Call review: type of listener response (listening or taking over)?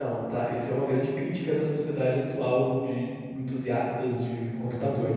taking over